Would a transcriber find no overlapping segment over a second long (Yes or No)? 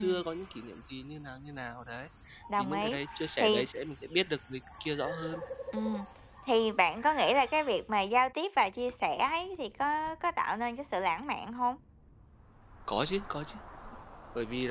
Yes